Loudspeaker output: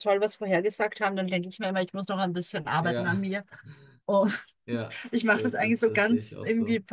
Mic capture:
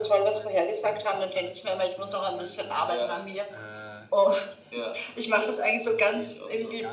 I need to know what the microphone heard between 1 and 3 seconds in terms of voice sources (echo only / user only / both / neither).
both